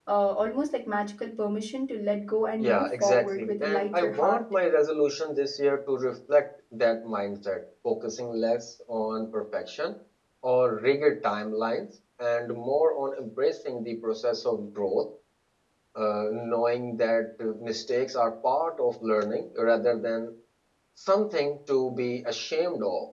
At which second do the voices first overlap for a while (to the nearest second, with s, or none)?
3 s